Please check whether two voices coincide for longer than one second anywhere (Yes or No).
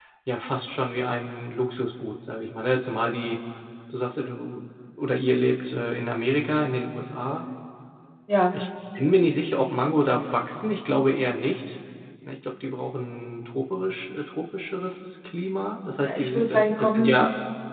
Yes